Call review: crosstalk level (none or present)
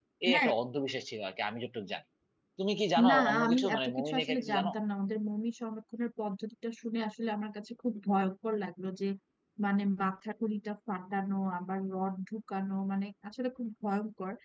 present